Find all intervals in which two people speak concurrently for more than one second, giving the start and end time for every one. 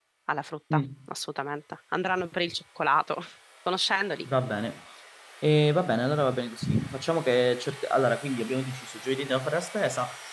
none

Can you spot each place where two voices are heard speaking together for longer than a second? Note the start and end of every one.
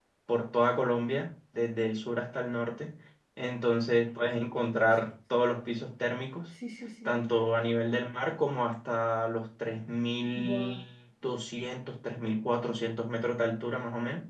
none

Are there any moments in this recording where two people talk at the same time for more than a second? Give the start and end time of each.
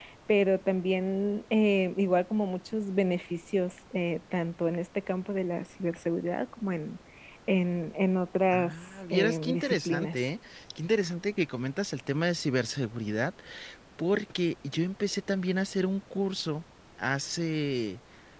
8.5-10.2

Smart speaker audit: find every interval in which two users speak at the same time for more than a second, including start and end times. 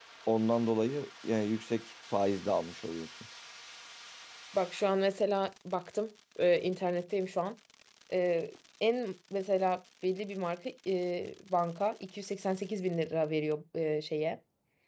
none

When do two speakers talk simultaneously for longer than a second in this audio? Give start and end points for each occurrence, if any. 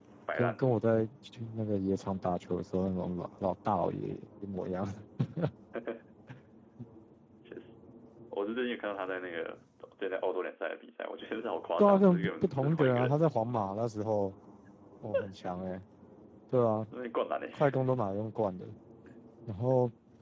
11.8-13.2

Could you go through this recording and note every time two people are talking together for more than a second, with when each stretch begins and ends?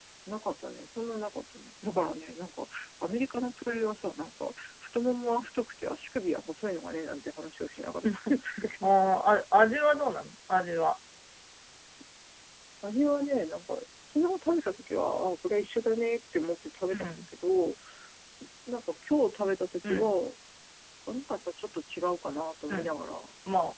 none

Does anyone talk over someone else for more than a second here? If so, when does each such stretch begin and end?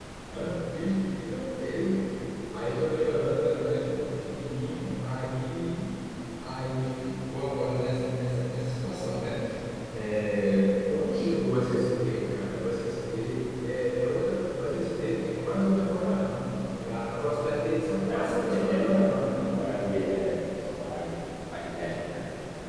18.1-19.6

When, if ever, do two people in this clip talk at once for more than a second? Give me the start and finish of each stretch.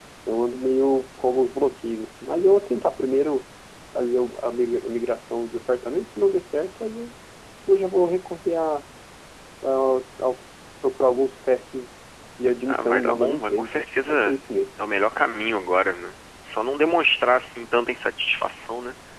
12.7-14.3

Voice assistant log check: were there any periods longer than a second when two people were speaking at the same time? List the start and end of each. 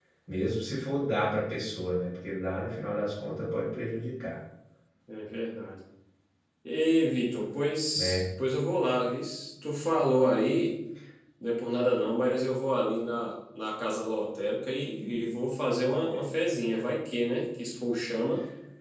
none

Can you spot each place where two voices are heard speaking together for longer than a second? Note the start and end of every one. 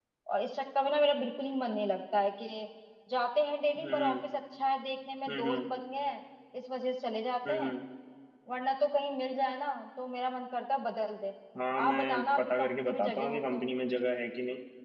11.8-13.6

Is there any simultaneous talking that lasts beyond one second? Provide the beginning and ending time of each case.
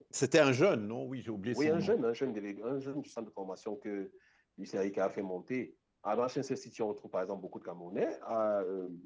none

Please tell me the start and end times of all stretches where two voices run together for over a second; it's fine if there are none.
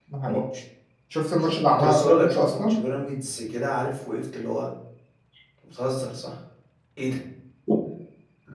1.4-2.8

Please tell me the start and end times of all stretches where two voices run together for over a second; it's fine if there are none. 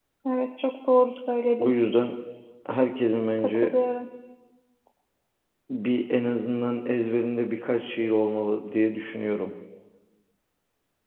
none

